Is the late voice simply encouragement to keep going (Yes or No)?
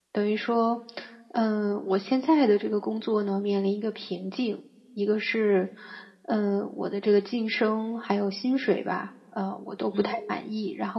Yes